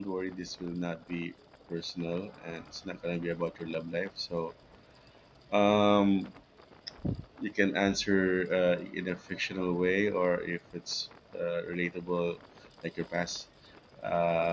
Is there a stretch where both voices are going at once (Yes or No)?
No